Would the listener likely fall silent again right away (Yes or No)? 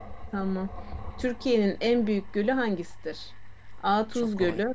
Yes